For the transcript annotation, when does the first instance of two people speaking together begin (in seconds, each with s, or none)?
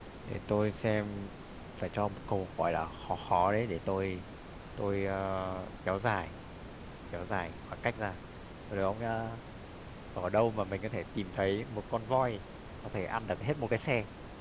none